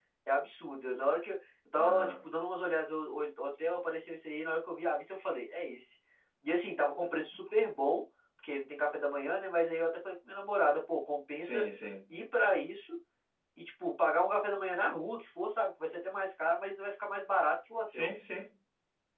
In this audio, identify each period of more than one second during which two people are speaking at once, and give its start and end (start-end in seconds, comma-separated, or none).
none